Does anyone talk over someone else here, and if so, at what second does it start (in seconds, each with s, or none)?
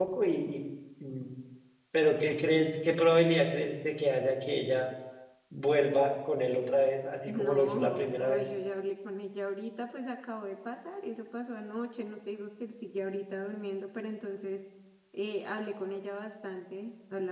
7.3 s